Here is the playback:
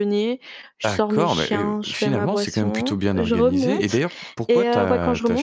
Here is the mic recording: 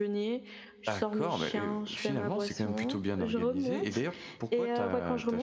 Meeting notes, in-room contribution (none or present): none